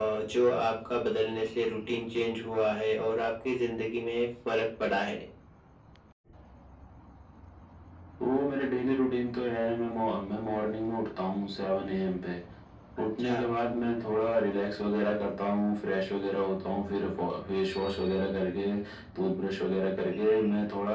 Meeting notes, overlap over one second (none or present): none